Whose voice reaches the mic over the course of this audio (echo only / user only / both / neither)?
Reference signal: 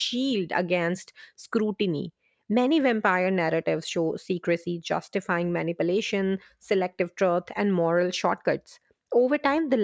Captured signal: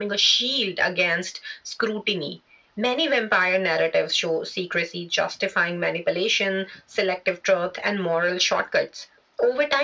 echo only